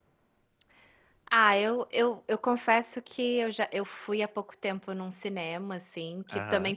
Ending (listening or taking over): listening